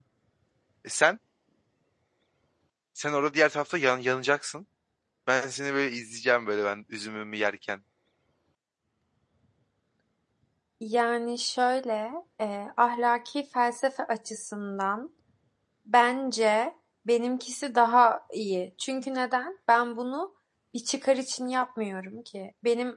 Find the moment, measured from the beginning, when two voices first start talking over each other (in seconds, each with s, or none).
none